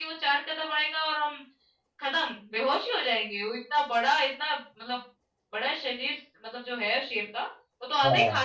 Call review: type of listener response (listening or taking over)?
listening